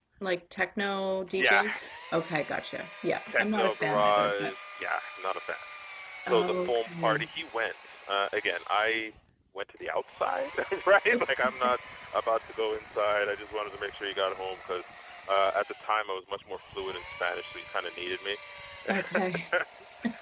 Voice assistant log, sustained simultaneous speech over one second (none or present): present